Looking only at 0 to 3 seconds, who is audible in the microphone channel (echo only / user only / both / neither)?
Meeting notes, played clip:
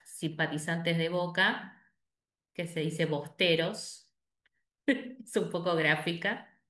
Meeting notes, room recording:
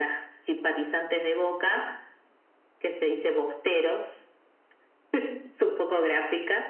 echo only